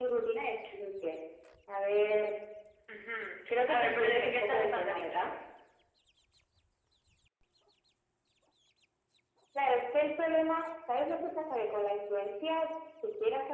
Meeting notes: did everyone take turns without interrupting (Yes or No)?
No